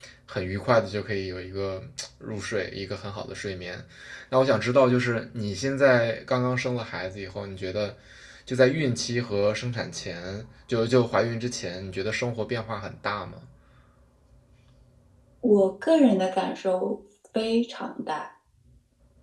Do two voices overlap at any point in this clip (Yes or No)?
No